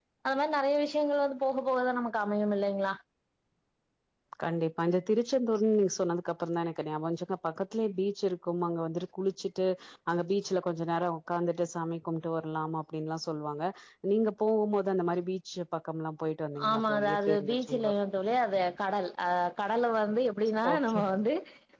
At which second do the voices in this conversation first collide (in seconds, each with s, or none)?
16.7 s